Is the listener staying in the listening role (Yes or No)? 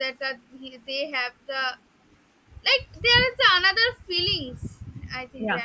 No